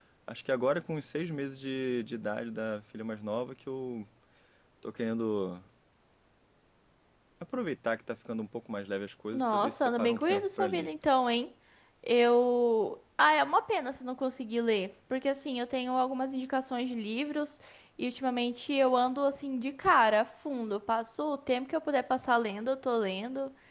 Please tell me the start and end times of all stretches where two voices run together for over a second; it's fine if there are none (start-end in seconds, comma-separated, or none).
9.3-10.9